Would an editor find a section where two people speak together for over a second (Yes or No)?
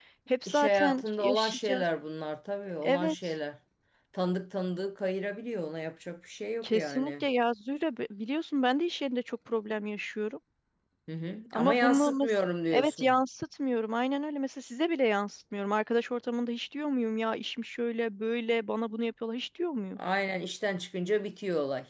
Yes